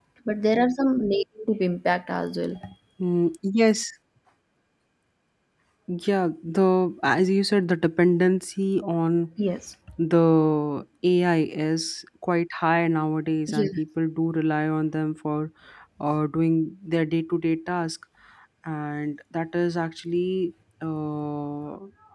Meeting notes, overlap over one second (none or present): none